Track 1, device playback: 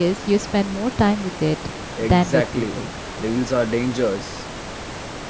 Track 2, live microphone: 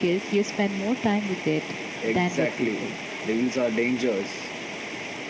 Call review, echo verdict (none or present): present